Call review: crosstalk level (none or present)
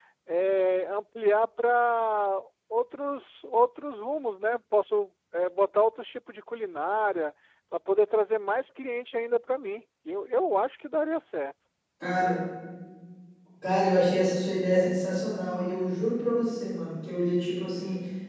none